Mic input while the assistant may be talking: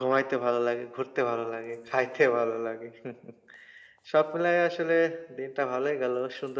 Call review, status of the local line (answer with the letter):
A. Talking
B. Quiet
B